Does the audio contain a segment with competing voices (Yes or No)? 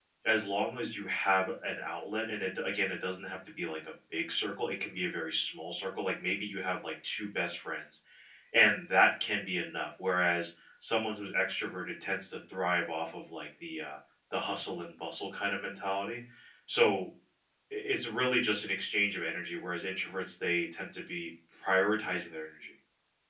No